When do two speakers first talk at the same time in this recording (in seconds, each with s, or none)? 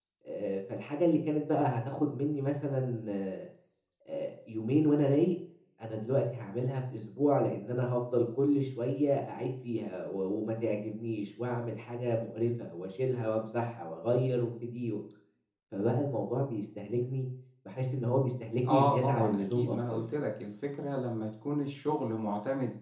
18.6 s